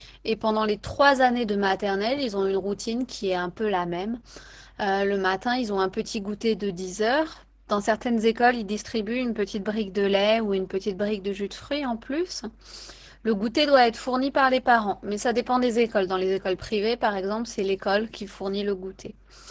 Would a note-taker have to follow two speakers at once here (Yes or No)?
No